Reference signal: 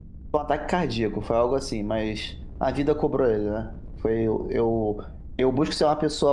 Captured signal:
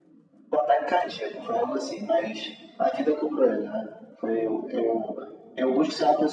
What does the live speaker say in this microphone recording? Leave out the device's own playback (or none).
none